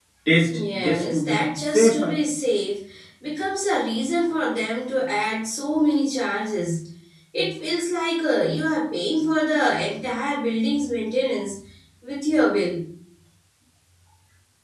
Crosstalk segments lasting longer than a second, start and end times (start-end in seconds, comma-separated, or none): 0.5-2.2